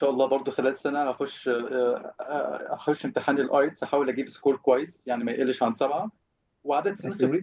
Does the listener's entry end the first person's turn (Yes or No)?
No